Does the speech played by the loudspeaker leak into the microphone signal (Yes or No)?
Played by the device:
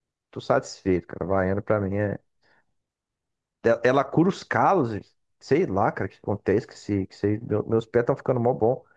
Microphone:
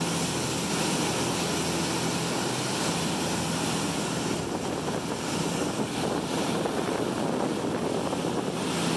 No